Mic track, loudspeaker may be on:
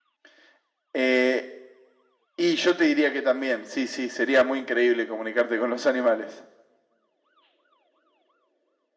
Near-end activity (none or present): none